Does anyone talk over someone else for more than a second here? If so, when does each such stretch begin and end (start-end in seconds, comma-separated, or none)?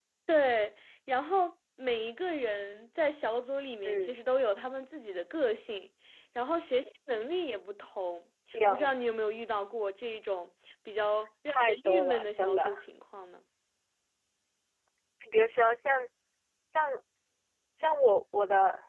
11.5-12.8